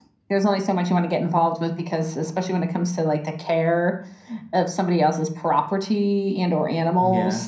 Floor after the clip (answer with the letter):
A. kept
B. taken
A